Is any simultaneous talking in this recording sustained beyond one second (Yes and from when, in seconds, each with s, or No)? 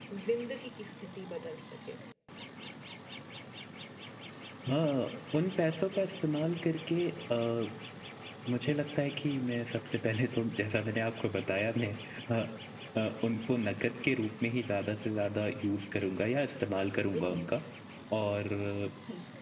No